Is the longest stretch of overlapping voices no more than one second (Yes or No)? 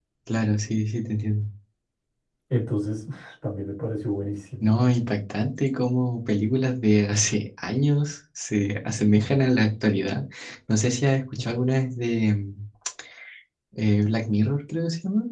Yes